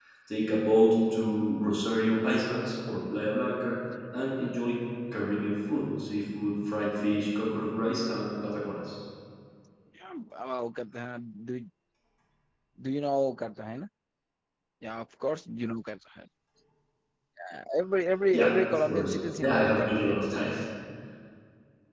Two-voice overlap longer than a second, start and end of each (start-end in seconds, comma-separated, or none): 18.3-20.2